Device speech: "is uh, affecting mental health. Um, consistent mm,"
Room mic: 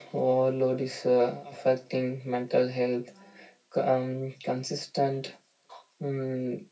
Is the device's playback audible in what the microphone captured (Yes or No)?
Yes